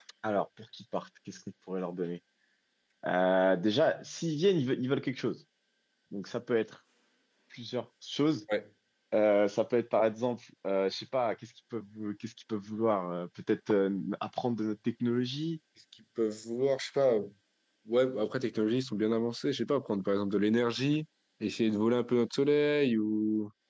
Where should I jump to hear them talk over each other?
none

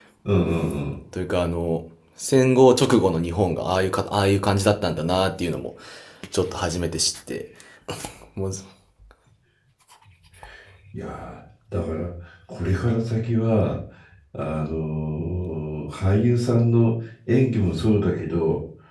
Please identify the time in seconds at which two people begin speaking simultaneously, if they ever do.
none

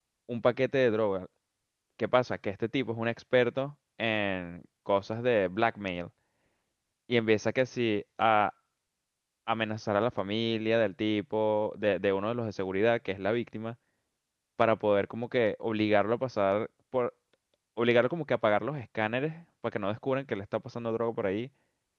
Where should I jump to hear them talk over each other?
none

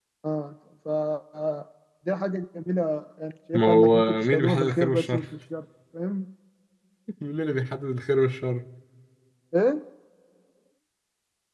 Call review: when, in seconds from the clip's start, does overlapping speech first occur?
4 s

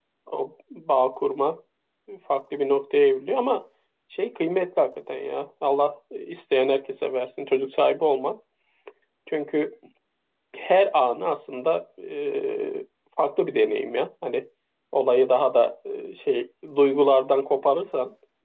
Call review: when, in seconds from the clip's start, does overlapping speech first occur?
none

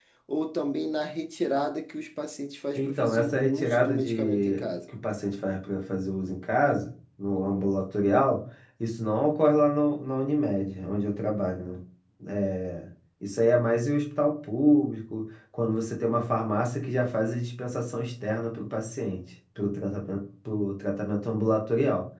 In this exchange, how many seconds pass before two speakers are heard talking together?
3 s

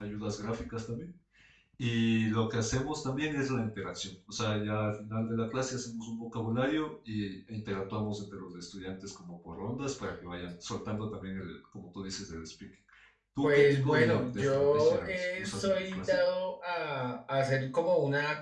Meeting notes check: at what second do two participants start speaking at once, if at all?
13 s

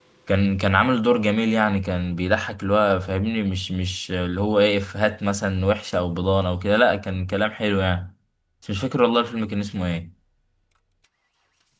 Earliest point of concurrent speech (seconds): none

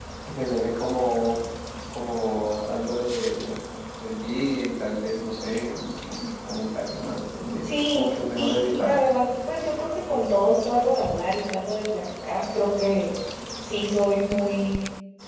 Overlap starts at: 7 s

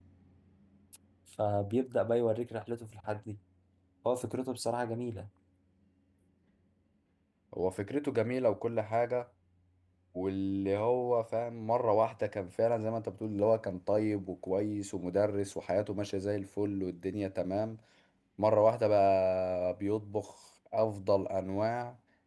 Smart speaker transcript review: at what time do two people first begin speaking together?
none

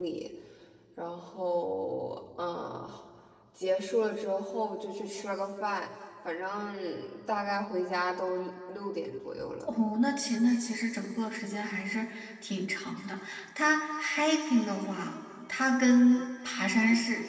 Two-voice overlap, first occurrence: none

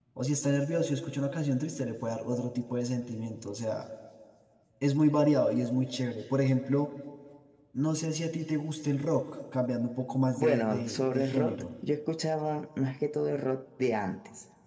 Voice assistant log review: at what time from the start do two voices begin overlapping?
10 s

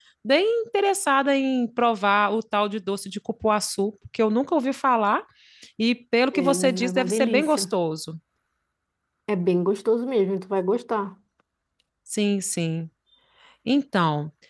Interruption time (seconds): 6 s

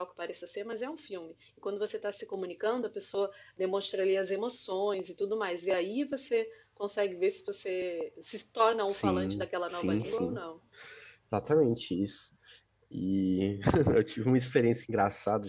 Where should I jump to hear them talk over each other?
9 s

